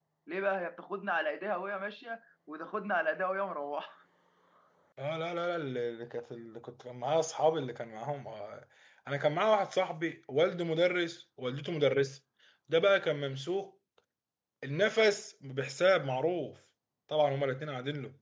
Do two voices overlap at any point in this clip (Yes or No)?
No